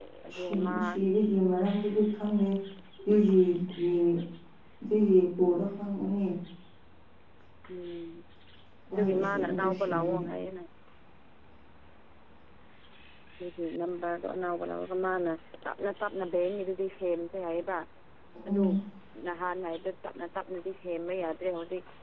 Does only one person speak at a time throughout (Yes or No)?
No